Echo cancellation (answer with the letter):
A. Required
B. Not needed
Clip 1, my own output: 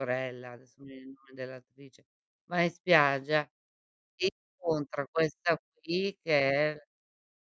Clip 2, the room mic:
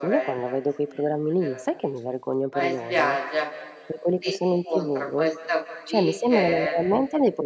A